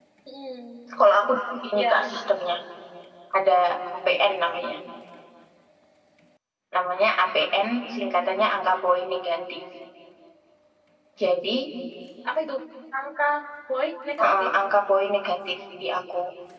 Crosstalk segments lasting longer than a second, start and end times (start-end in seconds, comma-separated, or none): none